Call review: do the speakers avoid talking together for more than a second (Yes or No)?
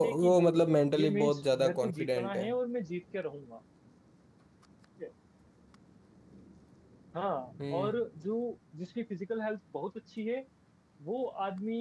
No